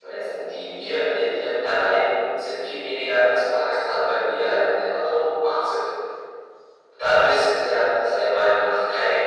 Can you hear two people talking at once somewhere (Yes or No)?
No